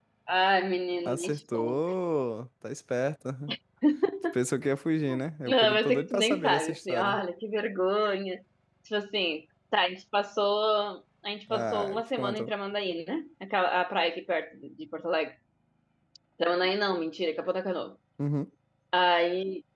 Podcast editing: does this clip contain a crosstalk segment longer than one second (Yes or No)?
Yes